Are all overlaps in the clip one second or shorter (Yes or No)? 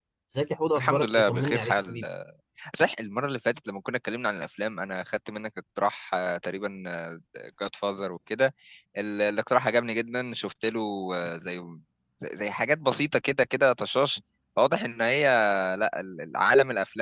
No